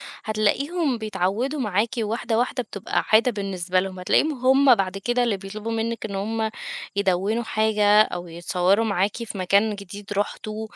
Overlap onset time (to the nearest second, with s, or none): none